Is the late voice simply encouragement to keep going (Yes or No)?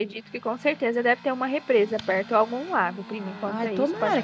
No